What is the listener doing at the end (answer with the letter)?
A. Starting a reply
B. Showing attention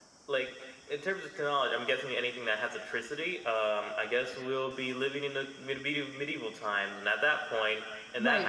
A